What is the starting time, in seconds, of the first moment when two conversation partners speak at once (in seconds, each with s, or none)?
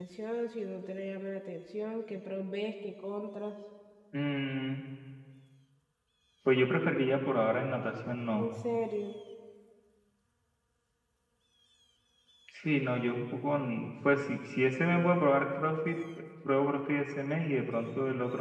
none